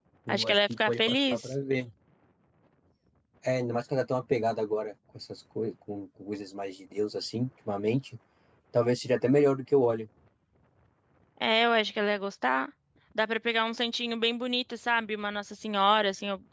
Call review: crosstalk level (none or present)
present